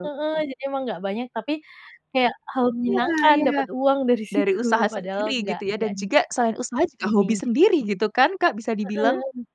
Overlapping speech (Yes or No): Yes